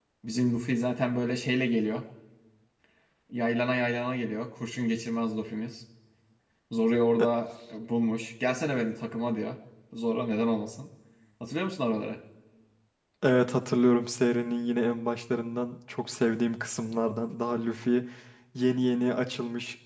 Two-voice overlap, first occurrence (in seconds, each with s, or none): none